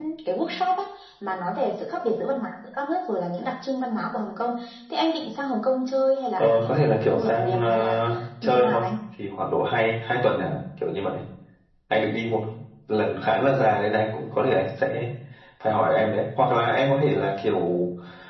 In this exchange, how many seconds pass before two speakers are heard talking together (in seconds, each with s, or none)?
6.4 s